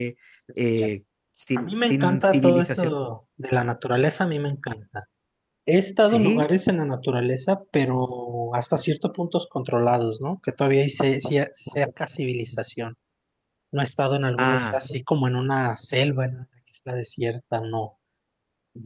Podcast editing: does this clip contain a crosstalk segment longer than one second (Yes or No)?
Yes